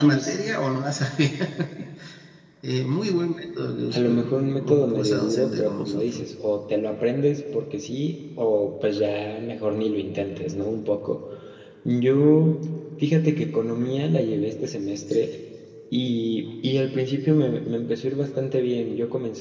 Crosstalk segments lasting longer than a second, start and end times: 3.9-6.2

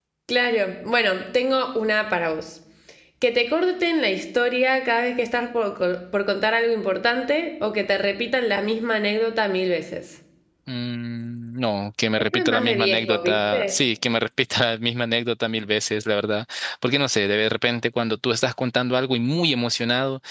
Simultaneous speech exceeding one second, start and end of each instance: 12.3-13.7

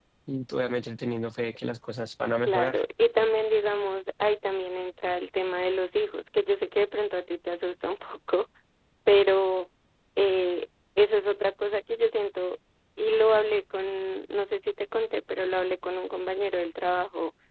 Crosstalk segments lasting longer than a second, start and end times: none

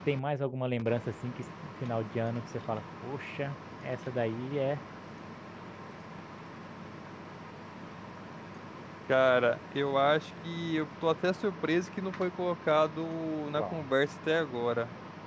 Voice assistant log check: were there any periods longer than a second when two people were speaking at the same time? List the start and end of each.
none

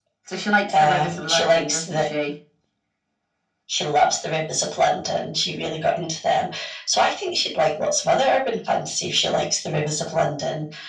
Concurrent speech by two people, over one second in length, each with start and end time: 0.7-2.0

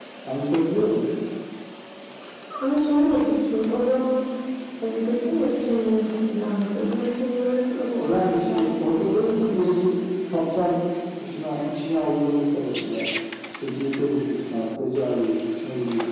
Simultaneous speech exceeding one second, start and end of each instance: 8.0-9.8

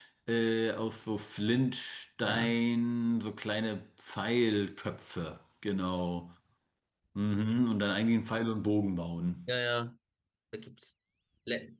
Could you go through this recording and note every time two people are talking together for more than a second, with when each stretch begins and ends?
none

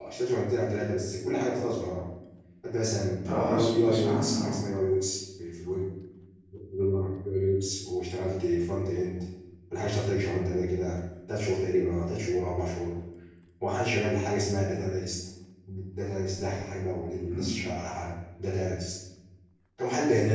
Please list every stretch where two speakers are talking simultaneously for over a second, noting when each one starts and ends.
3.3-4.6

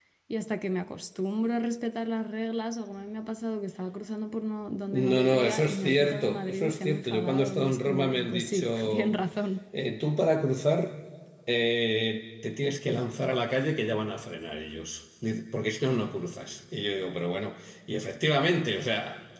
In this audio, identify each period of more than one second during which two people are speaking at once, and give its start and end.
4.9-9.1

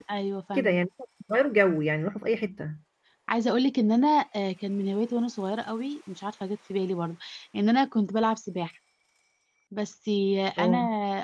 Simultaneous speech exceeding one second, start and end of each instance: none

